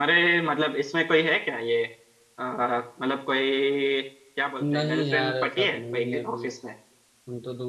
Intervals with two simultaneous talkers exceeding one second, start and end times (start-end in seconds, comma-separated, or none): 4.7-6.4